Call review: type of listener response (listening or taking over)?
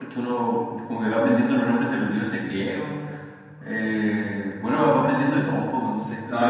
taking over